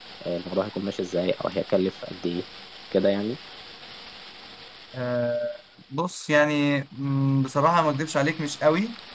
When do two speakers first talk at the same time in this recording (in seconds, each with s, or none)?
none